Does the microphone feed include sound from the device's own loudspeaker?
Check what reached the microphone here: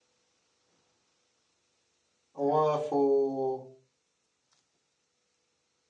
No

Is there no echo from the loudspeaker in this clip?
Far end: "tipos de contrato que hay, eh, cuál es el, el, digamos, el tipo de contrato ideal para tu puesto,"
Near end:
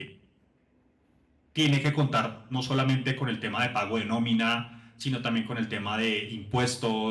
Yes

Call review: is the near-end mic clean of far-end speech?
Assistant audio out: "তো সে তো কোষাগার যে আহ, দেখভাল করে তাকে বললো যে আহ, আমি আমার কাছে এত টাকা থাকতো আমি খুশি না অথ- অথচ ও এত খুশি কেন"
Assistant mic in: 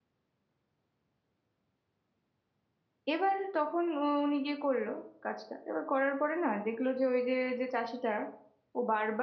Yes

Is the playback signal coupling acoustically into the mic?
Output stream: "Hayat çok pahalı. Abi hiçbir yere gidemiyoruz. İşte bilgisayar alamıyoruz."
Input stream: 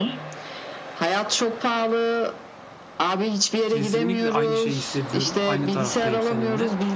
Yes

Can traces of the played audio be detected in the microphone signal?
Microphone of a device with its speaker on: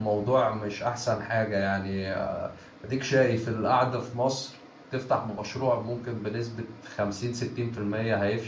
No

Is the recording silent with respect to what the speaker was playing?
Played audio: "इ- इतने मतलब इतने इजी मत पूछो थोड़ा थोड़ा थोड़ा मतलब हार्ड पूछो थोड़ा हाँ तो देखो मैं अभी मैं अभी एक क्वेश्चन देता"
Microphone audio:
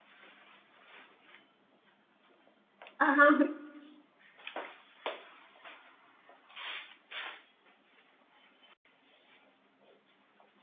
Yes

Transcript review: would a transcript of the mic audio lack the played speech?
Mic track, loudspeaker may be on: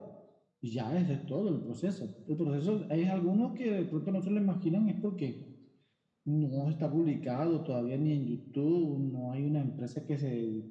No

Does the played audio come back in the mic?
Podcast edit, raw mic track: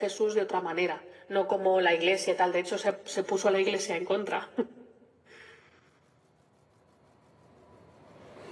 Yes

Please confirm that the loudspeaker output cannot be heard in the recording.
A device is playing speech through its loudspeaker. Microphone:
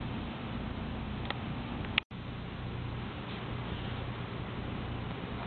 Yes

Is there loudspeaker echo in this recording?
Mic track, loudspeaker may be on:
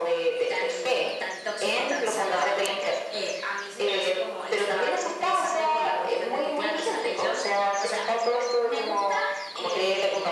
Yes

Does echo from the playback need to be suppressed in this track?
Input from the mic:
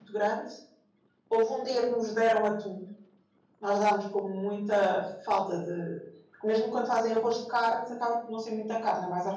No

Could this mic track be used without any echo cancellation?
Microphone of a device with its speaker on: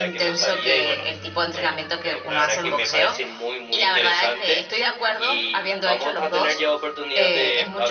No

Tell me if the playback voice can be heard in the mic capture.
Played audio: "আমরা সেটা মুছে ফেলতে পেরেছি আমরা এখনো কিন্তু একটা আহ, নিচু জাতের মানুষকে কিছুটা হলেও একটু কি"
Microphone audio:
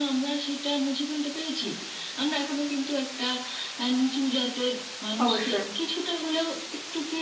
Yes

